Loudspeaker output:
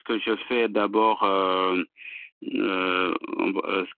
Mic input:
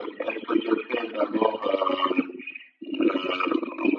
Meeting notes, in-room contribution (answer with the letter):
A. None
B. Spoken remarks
A